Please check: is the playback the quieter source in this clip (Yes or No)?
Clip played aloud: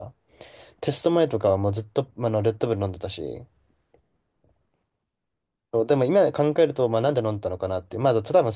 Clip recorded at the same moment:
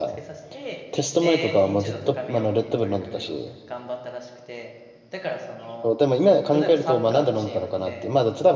No